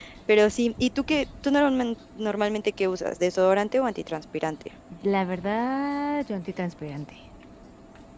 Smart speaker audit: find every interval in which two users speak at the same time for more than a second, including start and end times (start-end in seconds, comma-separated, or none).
none